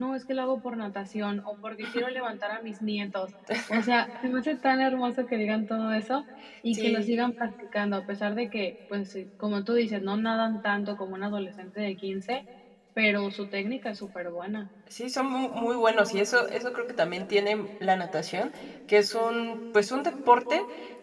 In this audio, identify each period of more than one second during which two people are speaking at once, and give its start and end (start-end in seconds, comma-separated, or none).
none